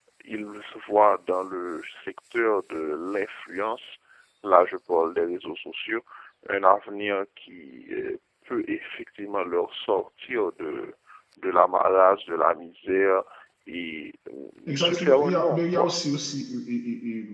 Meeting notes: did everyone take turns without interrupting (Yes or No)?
No